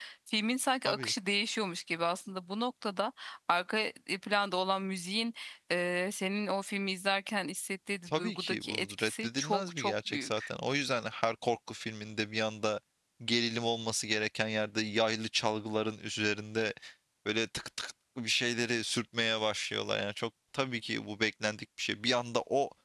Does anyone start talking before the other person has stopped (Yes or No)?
Yes